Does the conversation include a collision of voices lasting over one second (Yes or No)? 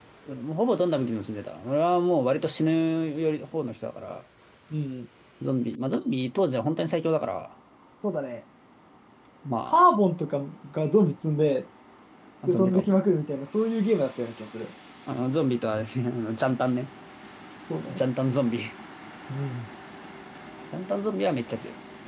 No